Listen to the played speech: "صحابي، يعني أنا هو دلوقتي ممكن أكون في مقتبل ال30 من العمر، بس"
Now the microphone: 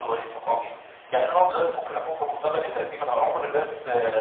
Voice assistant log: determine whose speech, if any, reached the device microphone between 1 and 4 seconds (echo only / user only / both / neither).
echo only